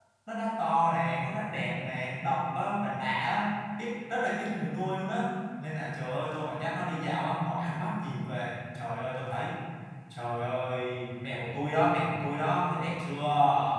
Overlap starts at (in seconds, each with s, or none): none